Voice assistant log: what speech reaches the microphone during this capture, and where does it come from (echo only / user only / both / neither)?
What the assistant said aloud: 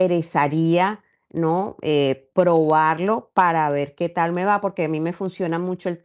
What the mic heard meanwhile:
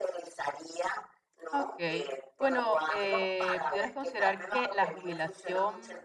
both